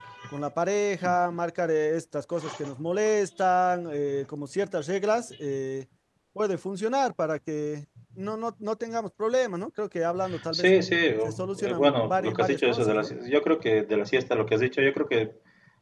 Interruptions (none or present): present